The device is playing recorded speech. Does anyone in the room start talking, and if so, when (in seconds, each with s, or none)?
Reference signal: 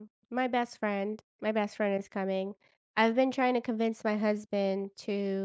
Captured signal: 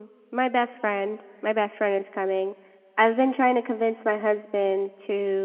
none